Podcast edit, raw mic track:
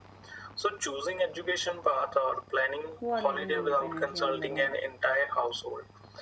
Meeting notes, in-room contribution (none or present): present